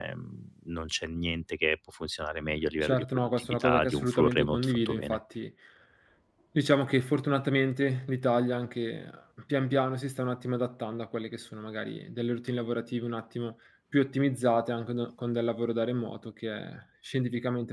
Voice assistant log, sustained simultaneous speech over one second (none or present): present